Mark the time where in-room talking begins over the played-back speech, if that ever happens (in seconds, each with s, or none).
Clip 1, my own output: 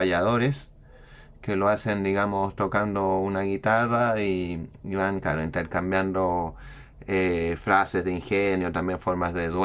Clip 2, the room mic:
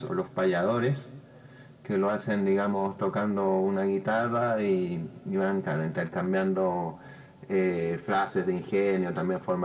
none